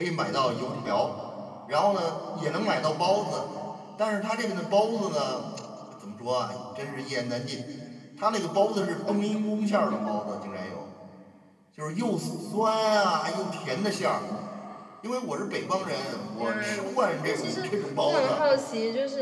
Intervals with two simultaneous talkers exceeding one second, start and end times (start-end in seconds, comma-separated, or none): 16.4-17.6